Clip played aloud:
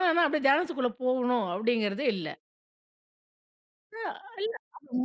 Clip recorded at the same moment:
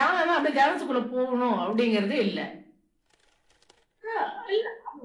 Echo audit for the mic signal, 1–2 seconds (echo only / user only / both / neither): echo only